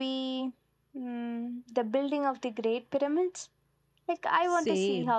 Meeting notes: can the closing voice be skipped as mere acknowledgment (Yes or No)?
No